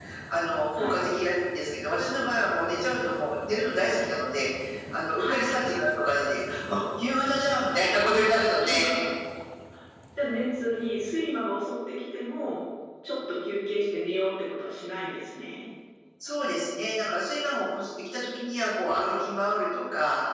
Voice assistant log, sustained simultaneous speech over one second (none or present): none